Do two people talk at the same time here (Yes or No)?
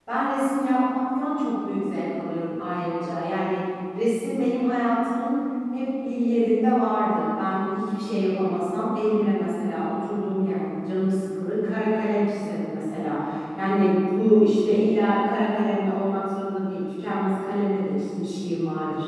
No